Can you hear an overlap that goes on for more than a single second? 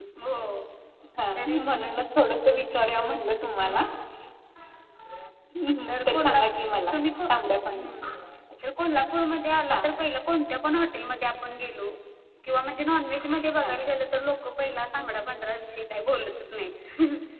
No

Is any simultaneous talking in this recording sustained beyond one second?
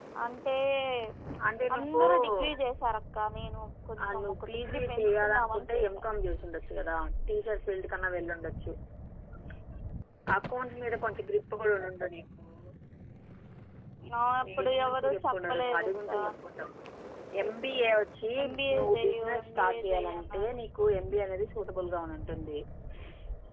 Yes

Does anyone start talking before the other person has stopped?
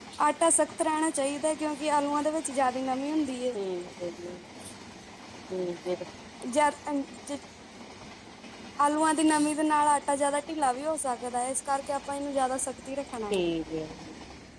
No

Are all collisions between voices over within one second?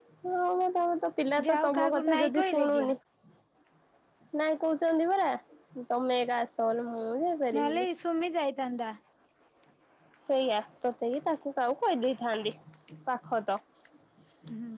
No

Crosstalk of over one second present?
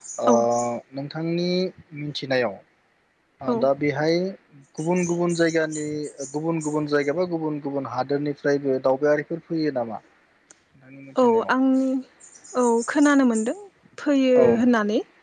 No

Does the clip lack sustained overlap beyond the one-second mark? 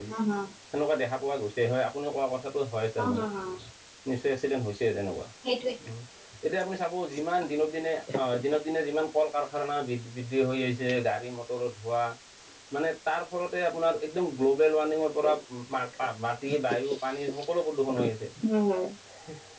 Yes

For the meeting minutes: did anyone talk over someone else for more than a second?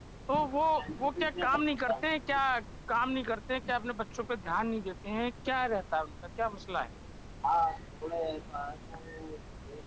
Yes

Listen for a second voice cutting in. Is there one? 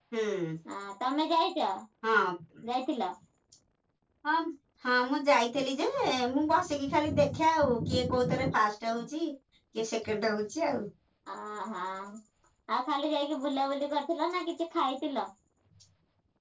No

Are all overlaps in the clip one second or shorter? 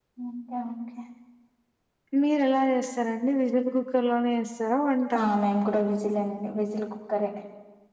Yes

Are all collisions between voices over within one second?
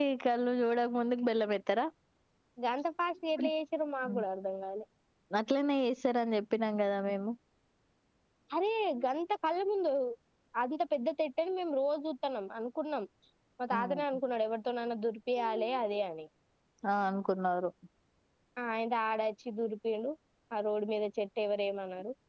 Yes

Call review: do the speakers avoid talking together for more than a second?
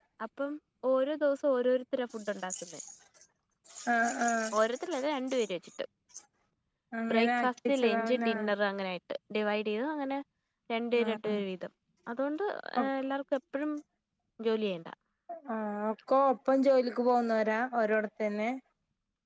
No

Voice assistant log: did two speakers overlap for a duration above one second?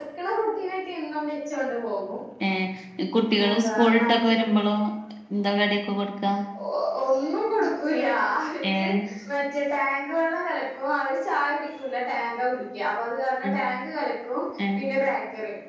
Yes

